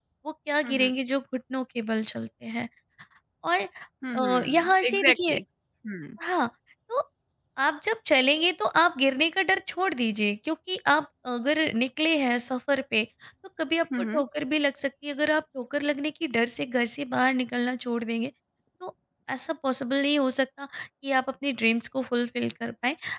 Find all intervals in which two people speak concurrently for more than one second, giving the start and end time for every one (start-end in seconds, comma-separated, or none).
4.2-5.3